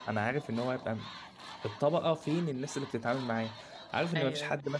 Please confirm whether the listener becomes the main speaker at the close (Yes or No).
No